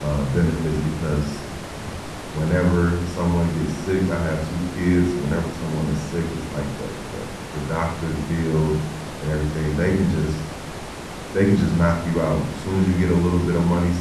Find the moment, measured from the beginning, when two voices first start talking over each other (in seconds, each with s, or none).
none